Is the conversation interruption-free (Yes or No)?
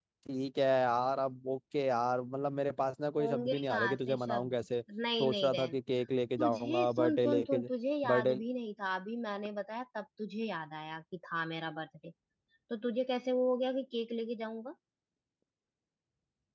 No